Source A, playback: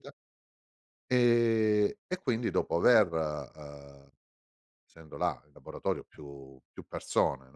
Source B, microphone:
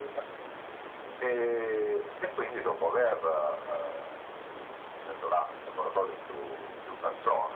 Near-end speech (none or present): none